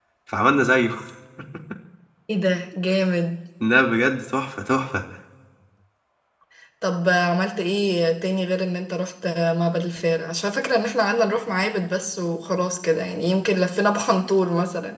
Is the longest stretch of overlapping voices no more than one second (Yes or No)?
Yes